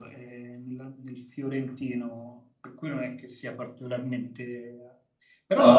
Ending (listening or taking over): listening